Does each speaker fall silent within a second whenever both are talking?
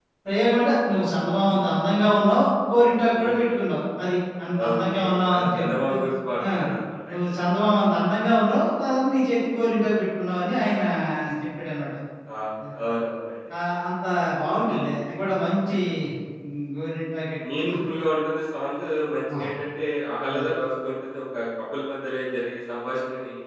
No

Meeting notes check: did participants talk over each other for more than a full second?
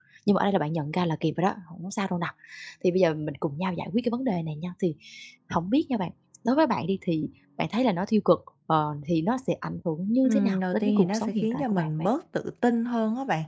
Yes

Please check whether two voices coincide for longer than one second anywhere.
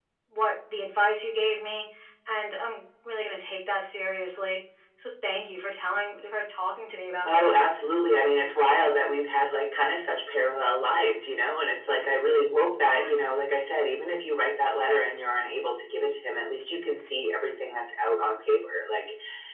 No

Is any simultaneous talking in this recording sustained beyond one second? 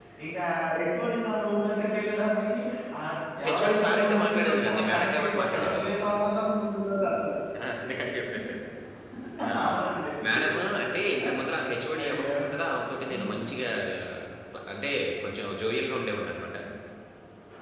Yes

